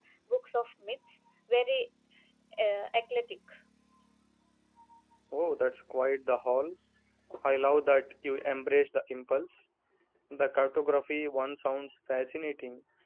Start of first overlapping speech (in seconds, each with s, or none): none